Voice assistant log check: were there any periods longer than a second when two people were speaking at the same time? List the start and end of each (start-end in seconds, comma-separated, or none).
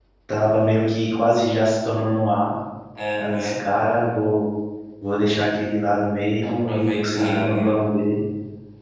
6.4-7.8